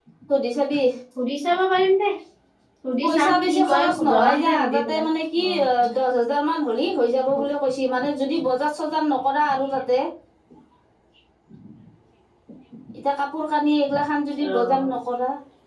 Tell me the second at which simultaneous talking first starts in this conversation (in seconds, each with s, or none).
3.0 s